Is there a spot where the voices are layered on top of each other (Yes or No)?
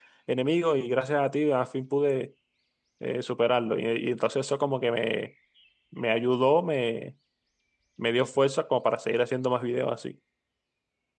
No